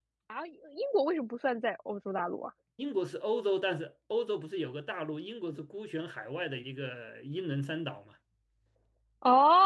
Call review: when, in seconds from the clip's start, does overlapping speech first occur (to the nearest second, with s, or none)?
none